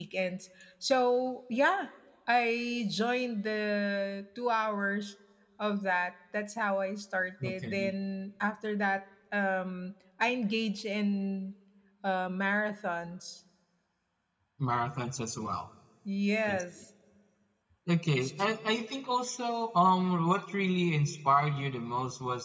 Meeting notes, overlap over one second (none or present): none